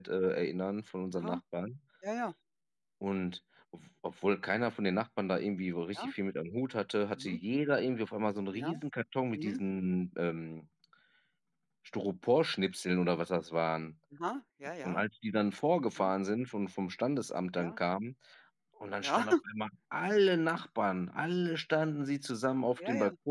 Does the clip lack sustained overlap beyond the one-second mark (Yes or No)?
Yes